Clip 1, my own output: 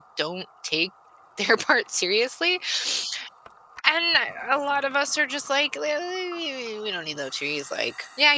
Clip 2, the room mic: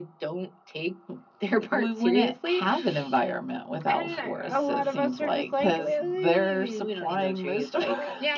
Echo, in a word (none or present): present